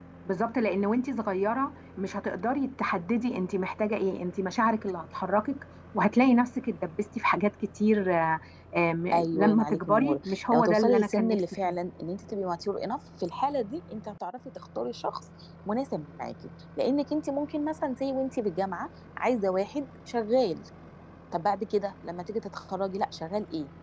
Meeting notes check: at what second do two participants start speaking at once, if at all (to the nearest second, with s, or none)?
9 s